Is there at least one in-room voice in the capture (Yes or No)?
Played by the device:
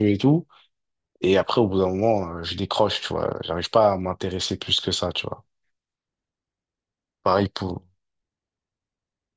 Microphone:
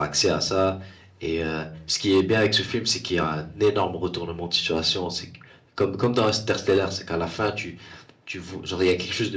Yes